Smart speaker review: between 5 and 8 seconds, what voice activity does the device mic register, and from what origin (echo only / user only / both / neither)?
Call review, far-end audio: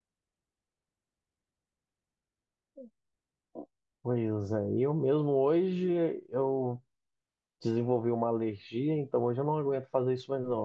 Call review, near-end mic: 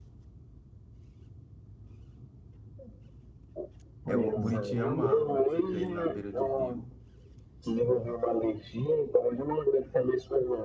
both